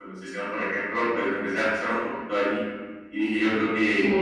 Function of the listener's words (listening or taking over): taking over